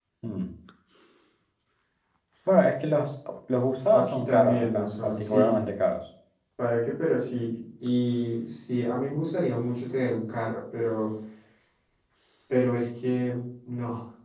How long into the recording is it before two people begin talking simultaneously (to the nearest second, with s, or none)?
4 s